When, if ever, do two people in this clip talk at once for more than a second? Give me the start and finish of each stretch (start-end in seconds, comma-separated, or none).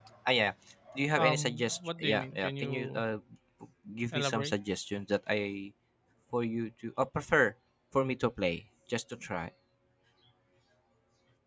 1.2-3.0